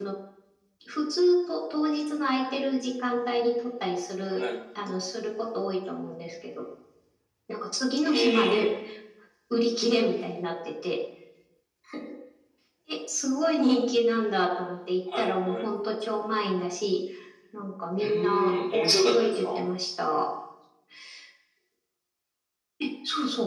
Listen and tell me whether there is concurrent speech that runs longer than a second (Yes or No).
Yes